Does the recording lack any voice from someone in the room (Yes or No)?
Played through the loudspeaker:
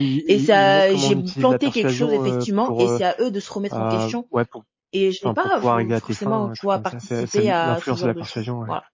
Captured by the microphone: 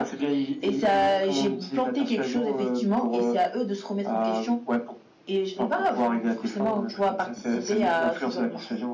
Yes